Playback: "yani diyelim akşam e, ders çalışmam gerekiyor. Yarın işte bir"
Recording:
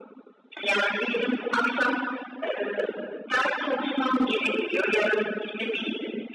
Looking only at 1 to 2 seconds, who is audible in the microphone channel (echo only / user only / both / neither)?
echo only